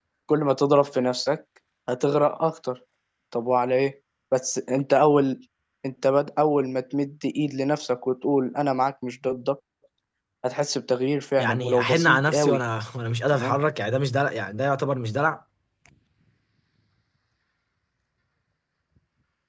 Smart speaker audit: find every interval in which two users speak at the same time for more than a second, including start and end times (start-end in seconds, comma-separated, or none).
11.4-12.6